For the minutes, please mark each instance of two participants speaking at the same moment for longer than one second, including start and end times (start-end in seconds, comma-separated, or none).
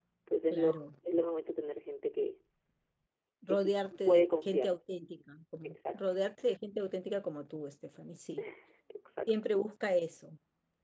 3.5-4.7